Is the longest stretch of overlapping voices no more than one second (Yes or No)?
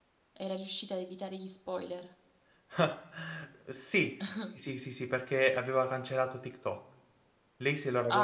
Yes